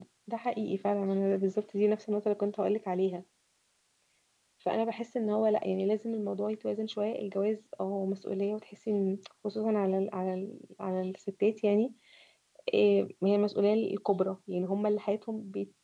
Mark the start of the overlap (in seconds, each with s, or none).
none